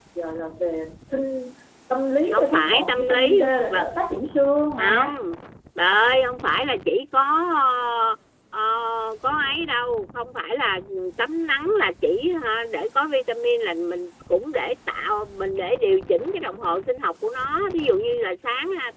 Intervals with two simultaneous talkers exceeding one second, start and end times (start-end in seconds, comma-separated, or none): 2.3-3.9